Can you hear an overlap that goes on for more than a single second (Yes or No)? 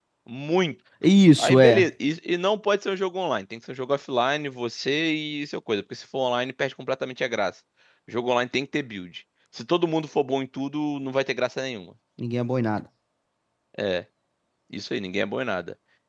No